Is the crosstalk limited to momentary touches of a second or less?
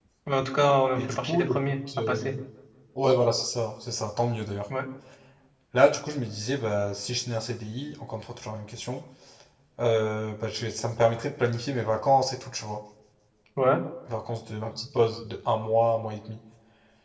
No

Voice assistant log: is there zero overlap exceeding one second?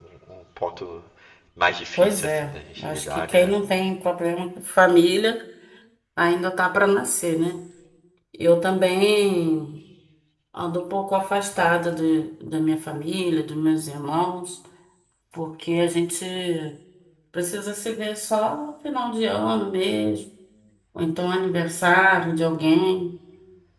No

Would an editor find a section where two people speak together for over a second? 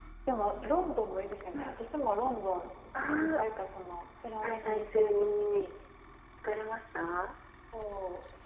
Yes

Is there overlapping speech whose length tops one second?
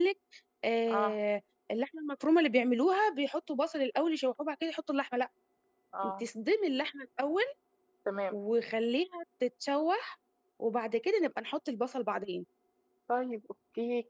No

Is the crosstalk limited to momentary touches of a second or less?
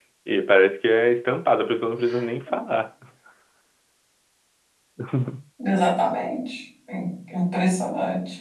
Yes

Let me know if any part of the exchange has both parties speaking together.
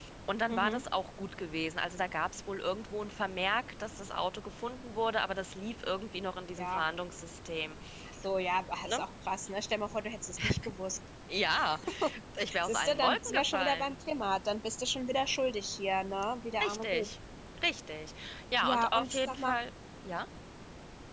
Yes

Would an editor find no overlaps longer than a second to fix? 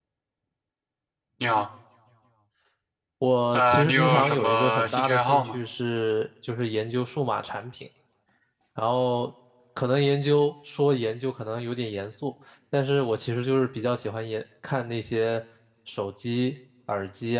No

